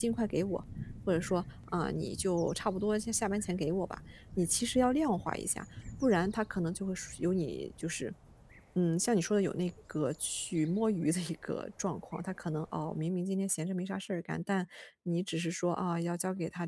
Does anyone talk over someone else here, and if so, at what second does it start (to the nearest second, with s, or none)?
none